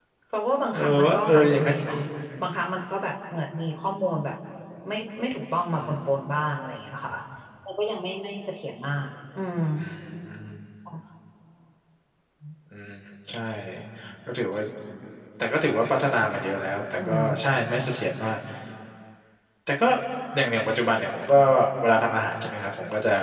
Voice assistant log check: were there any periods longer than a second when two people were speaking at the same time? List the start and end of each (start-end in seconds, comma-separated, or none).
0.7-2.0